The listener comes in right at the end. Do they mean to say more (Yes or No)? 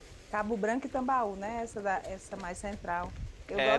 Yes